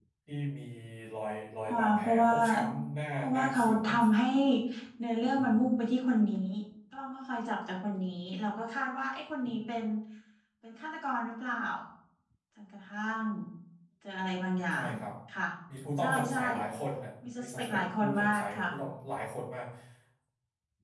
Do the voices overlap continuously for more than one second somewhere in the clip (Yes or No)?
Yes